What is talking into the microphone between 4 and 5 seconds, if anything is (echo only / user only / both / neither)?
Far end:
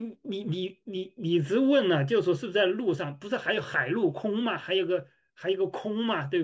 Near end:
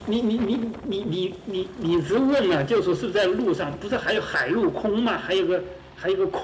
echo only